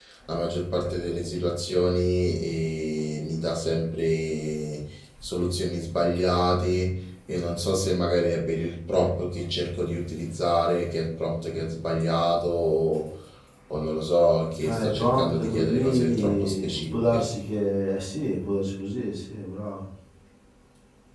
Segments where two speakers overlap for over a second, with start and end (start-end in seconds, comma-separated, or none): 14.7-17.2